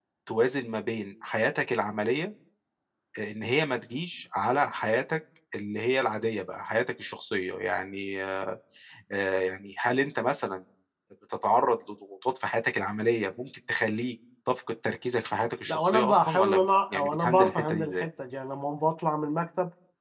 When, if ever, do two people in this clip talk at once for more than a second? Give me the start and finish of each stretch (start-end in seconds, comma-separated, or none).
15.7-18.1